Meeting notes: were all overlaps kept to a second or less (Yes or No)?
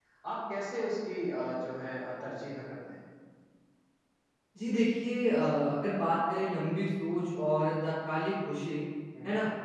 Yes